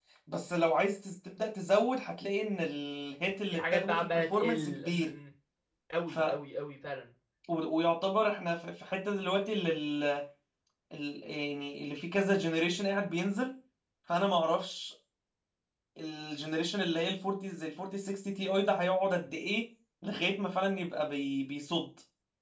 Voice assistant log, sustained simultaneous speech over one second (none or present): present